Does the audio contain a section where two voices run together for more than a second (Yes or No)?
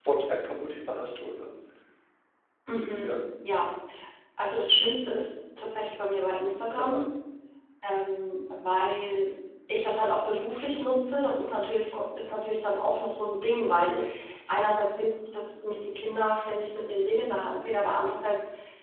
No